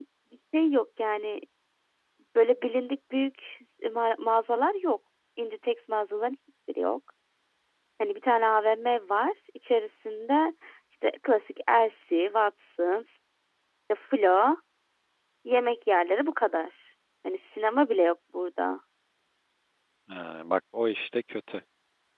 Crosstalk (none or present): none